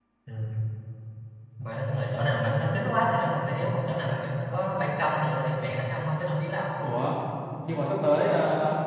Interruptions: none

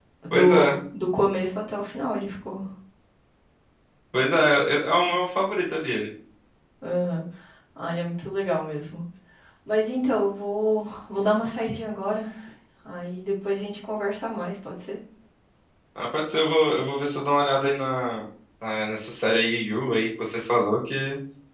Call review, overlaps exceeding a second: none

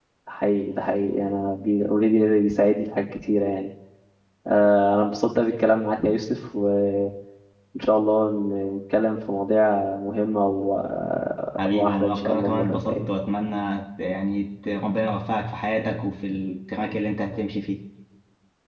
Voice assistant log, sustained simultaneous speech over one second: present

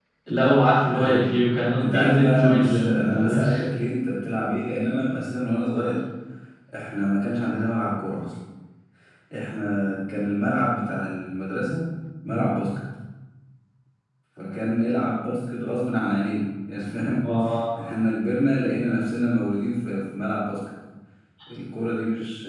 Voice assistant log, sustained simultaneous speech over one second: present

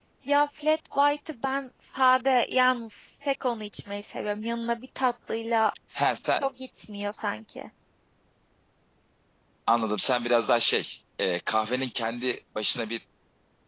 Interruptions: none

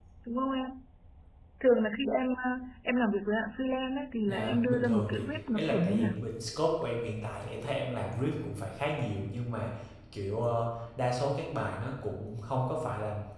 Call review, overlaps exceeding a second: present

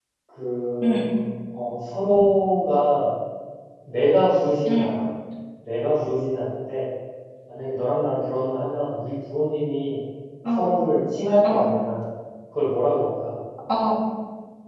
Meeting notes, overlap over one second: none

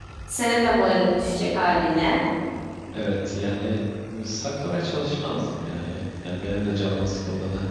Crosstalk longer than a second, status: none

